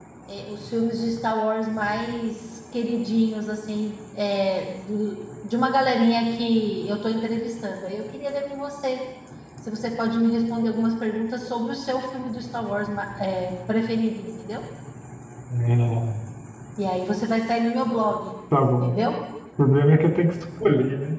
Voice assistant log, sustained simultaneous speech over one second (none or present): none